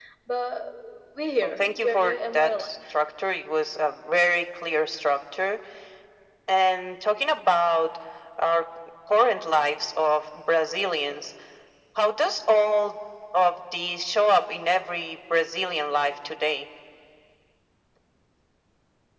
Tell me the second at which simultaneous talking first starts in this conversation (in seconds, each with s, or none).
1.4 s